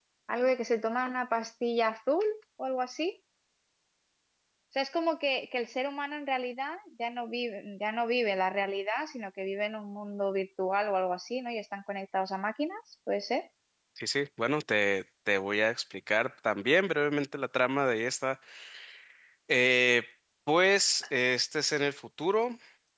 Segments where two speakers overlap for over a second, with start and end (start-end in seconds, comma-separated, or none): none